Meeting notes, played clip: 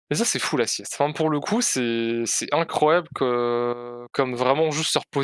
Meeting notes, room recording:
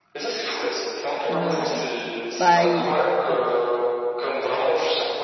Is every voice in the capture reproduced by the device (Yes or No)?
No